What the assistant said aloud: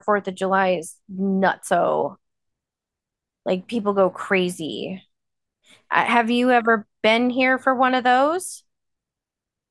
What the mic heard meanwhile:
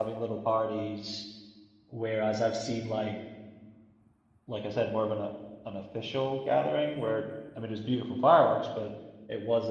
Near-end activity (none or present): present